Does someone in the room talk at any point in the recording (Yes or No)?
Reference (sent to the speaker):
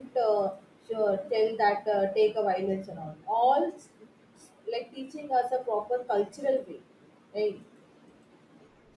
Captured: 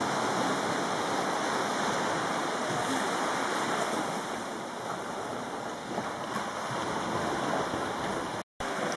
No